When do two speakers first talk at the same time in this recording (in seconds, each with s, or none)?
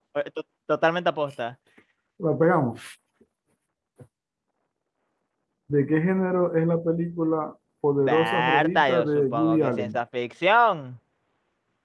8.1 s